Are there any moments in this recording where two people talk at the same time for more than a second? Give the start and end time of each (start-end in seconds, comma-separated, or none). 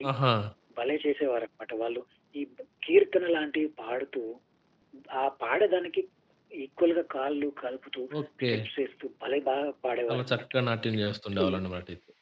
none